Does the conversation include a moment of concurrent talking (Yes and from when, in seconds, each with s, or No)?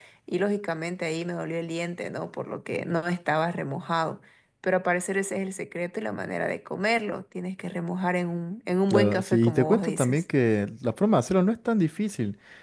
Yes, from 8.9 s